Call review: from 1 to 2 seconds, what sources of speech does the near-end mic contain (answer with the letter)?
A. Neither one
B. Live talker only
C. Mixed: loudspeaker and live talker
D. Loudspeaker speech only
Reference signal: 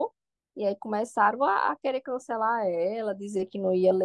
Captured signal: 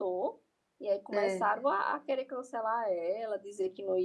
C